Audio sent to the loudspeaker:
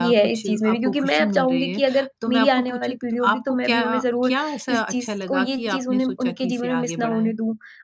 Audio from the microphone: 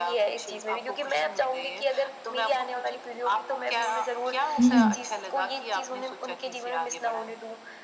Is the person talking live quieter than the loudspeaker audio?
No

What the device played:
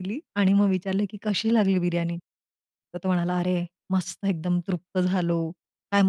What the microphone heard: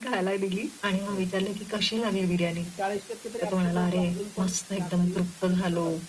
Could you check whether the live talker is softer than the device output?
Yes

